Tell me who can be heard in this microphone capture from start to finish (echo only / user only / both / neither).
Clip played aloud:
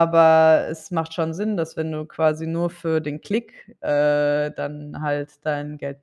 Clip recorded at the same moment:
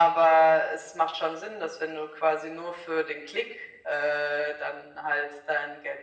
echo only